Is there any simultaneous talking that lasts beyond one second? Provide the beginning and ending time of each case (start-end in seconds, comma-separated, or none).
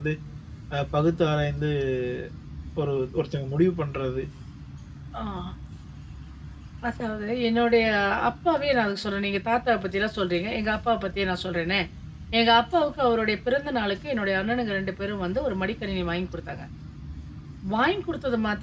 none